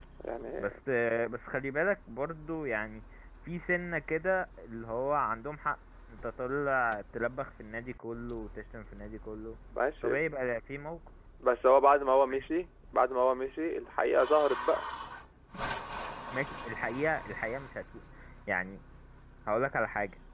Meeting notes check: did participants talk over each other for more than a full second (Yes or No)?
No